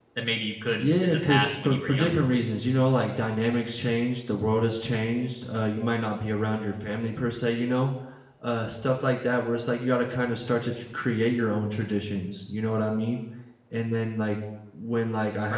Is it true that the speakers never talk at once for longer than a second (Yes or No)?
No